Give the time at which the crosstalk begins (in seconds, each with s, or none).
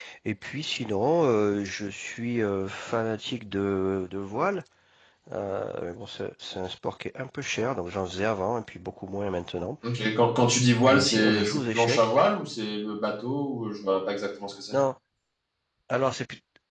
10.9 s